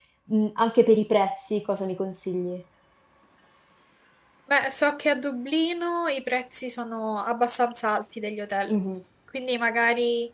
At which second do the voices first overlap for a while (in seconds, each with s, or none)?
none